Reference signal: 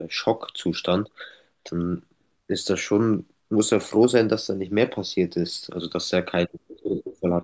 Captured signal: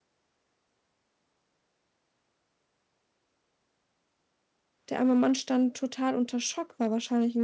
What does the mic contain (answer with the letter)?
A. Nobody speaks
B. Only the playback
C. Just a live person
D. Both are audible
C